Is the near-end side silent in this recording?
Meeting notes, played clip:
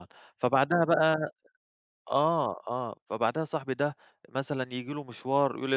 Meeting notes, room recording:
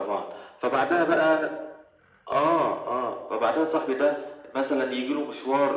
Yes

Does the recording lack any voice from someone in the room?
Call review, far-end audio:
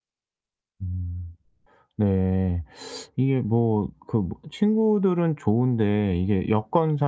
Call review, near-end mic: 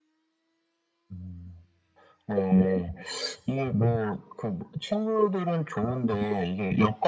Yes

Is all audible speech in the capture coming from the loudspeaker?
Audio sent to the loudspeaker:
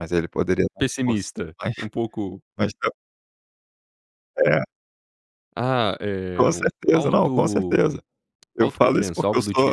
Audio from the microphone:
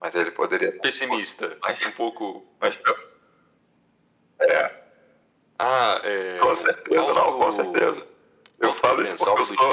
Yes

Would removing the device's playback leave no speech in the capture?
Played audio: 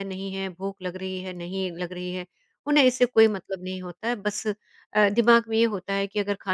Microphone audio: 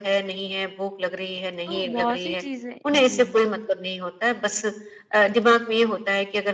No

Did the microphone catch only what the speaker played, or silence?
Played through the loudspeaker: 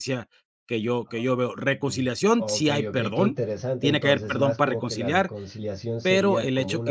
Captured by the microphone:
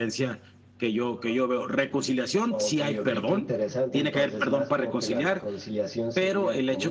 Yes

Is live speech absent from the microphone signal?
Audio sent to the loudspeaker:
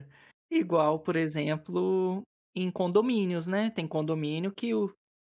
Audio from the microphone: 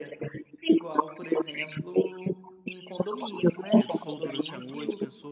No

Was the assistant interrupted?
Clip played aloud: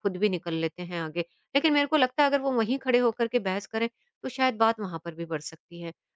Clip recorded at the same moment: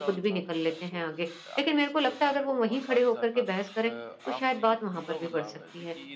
Yes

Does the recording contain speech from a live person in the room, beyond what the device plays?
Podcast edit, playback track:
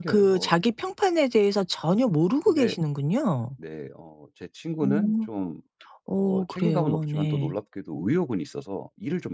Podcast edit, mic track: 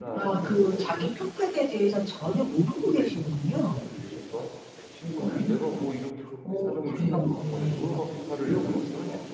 Yes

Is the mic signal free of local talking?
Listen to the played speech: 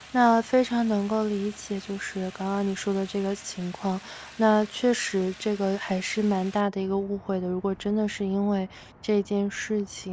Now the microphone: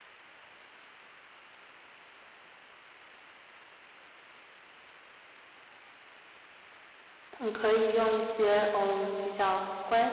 No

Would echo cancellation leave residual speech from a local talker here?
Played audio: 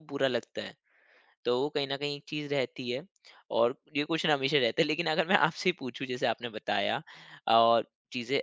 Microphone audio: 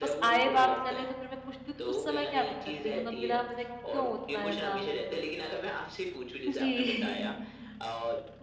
Yes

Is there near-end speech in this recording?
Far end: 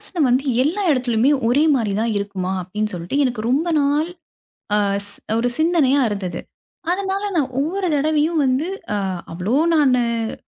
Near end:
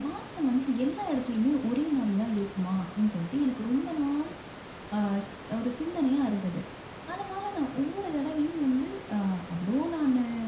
No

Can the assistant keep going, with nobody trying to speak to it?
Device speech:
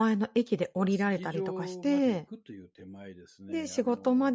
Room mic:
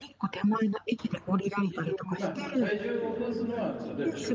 No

